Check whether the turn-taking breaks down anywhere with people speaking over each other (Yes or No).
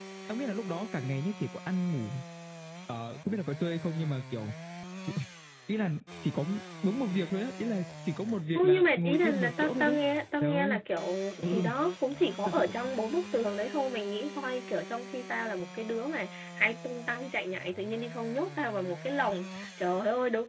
Yes